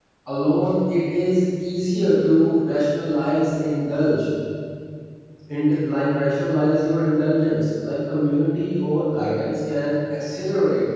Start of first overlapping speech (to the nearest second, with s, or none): none